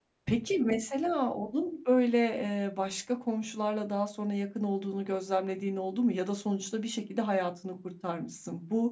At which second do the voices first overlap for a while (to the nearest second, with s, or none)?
none